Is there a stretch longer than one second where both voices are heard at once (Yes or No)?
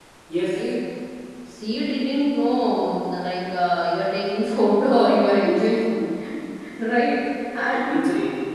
No